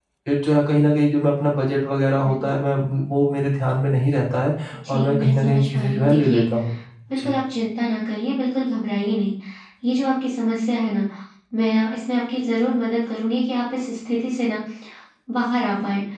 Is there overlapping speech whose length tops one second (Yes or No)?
Yes